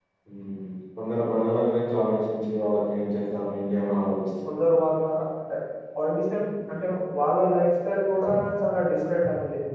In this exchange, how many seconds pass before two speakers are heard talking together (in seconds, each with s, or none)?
none